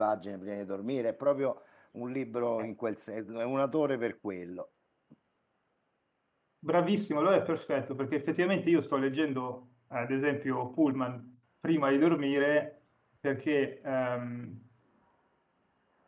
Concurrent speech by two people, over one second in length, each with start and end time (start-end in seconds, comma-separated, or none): none